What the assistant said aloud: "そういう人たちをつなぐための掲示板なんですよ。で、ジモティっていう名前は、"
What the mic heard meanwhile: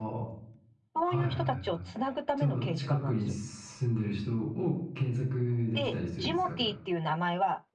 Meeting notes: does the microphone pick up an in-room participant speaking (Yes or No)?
Yes